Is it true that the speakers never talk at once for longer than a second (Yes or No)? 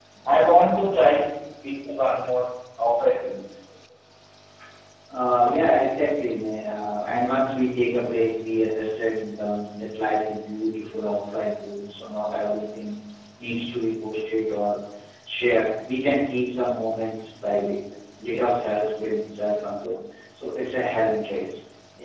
Yes